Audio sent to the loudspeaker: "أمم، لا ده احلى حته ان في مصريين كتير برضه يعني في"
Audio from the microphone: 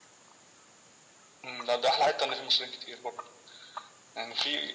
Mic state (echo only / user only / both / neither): echo only